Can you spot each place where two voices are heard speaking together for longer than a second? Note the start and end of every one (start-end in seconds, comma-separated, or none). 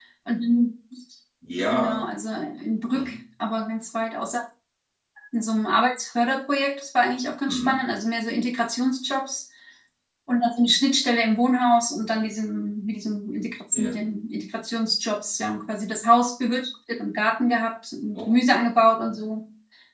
none